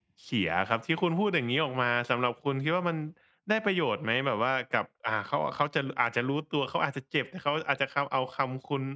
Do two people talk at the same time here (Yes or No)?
No